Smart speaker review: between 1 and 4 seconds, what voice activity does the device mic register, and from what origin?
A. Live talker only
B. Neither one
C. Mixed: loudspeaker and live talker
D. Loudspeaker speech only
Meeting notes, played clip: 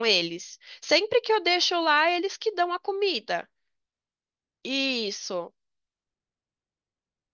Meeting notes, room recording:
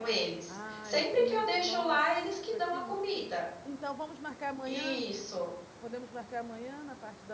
C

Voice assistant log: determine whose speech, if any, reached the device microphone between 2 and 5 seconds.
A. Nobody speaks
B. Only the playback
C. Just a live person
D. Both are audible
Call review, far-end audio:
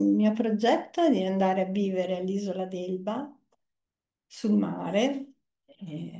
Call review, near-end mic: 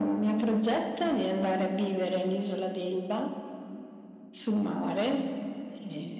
B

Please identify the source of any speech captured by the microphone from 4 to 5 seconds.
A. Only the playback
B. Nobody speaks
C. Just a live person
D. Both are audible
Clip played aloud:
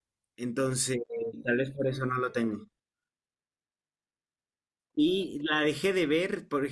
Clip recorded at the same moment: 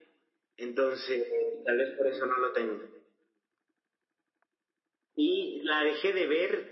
B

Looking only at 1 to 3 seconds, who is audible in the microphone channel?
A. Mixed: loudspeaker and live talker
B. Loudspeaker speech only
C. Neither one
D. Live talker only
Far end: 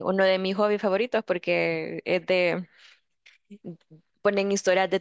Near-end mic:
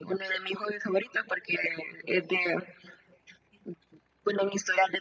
B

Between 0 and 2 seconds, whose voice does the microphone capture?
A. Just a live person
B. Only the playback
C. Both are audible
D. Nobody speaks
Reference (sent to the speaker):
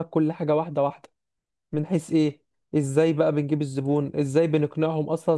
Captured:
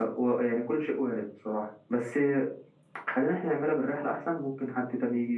A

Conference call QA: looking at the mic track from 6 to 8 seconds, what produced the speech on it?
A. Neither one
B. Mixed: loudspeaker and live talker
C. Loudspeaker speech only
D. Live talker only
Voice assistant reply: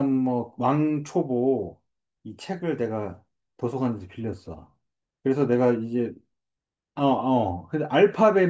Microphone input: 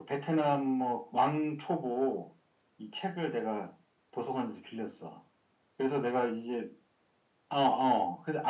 C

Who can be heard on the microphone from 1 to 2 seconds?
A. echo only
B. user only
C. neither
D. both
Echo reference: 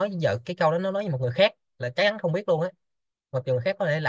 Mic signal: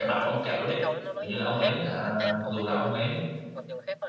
D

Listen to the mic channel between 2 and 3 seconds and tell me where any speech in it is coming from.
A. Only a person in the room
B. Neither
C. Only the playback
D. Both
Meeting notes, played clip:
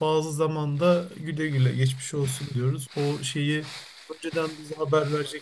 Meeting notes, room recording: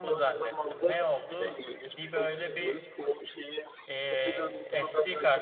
D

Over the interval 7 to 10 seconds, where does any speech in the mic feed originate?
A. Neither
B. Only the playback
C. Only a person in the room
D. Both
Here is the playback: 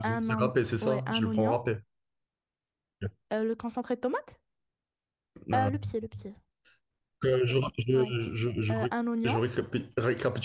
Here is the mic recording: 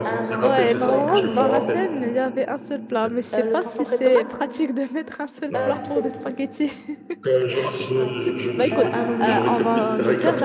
D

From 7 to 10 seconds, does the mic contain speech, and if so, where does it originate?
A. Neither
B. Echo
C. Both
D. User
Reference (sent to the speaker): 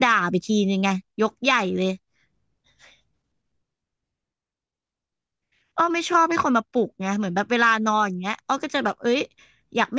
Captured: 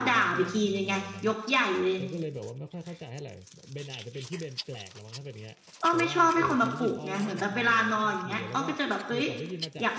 C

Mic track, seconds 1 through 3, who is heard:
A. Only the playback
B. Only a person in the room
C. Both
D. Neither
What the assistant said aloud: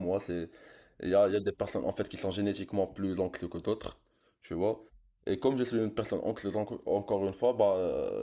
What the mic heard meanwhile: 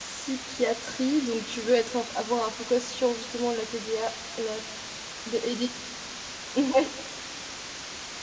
B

